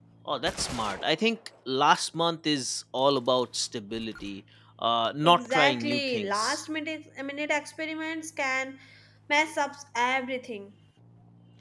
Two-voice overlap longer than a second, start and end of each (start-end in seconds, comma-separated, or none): 5.2-6.6